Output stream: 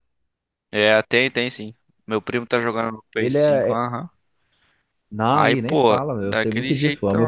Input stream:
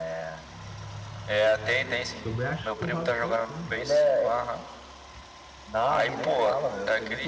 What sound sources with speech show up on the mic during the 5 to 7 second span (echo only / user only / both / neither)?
echo only